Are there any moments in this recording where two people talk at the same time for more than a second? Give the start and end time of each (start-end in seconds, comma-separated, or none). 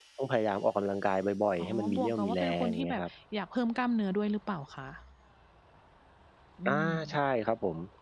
1.6-3.0